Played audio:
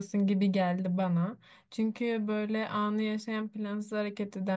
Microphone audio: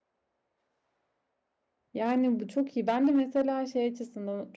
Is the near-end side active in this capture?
Yes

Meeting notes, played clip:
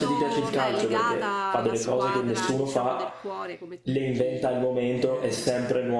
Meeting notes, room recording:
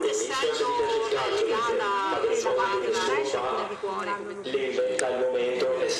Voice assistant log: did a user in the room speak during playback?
Yes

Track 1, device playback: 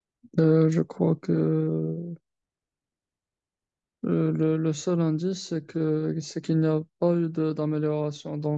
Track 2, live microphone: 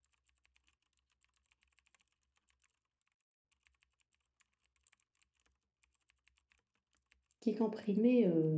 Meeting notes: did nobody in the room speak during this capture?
No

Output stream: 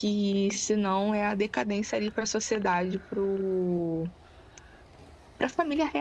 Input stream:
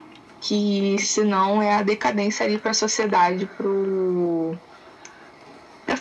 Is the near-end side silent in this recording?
Yes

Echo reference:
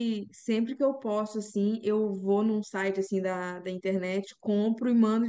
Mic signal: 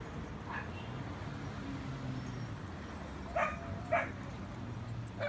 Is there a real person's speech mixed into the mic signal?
No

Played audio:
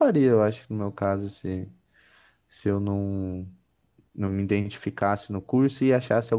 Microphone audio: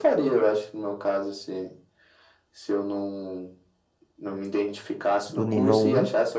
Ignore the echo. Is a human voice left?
Yes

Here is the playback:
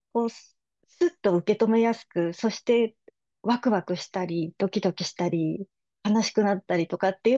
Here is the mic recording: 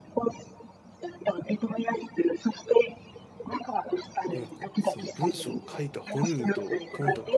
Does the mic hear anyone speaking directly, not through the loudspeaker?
Yes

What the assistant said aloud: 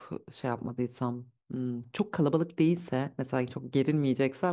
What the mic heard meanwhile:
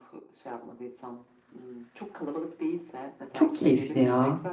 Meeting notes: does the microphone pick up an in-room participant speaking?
Yes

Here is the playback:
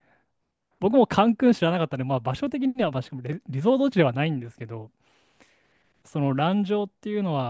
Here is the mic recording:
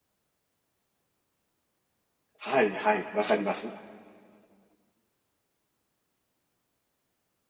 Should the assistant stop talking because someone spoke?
Yes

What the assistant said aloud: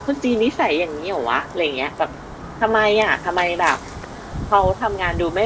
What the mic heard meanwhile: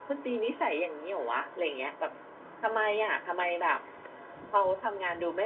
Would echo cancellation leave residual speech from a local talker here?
No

